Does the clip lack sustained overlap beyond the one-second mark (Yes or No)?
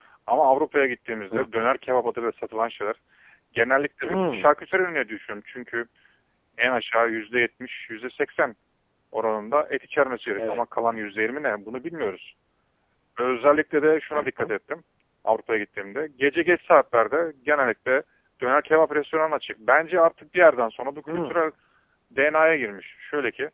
Yes